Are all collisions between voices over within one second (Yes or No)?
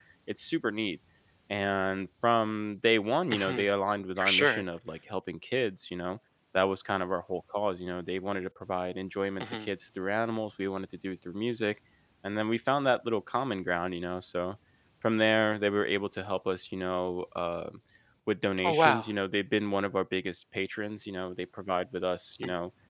Yes